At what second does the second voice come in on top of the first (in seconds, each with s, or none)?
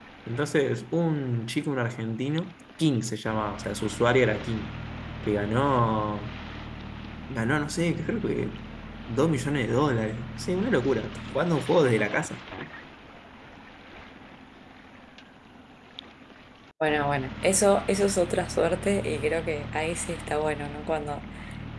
none